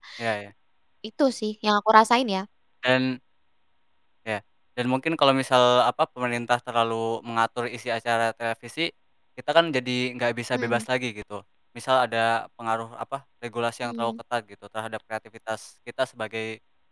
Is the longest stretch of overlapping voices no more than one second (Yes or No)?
Yes